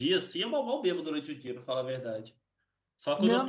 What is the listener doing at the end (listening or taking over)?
taking over